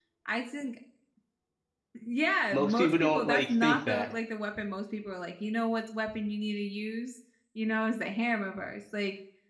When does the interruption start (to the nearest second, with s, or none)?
3 s